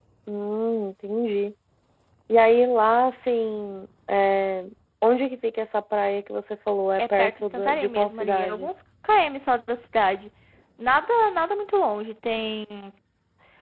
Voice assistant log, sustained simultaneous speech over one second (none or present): present